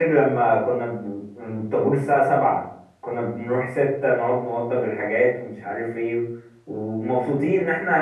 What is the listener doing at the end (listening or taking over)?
listening